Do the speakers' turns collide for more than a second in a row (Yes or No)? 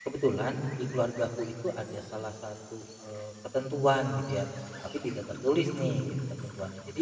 No